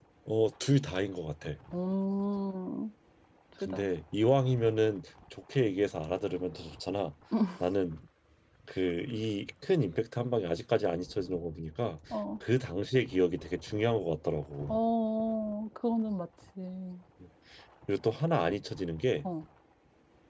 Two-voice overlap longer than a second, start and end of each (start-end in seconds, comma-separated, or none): none